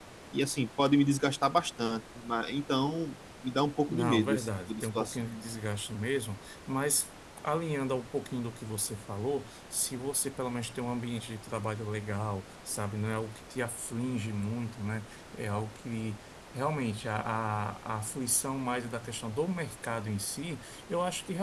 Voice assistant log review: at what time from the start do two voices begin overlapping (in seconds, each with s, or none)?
3.9 s